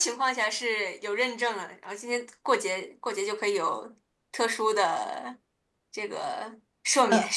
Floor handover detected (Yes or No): Yes